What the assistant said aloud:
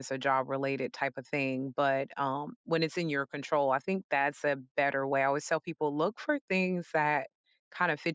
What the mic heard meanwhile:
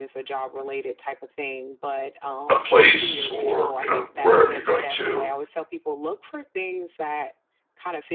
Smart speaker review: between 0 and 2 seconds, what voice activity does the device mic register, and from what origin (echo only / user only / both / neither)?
echo only